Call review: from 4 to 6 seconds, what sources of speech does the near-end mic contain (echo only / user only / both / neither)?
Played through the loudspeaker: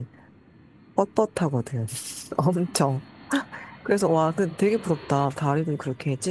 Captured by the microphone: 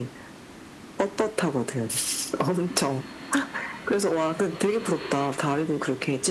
echo only